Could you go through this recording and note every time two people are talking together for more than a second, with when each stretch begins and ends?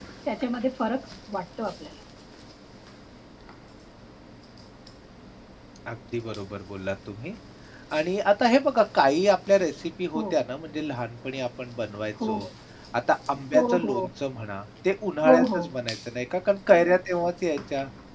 none

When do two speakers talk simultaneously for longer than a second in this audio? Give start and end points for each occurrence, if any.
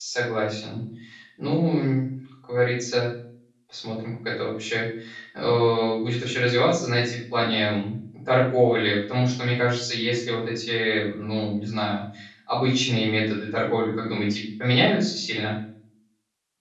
none

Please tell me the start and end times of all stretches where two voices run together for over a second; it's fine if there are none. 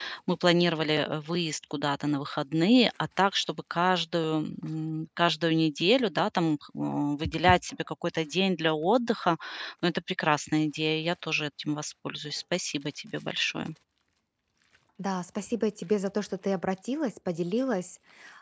none

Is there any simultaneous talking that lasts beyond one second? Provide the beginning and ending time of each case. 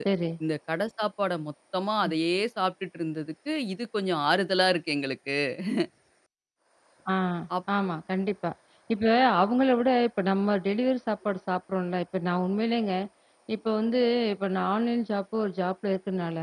none

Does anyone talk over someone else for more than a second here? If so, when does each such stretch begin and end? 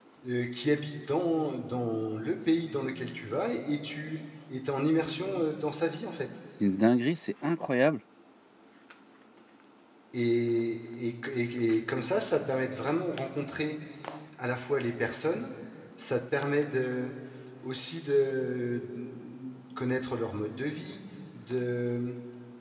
none

